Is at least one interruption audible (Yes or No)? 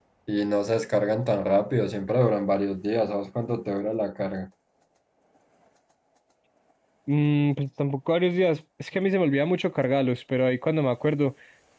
No